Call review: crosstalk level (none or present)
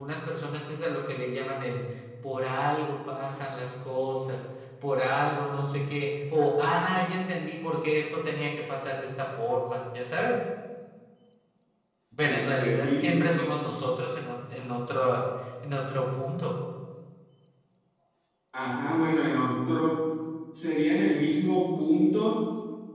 present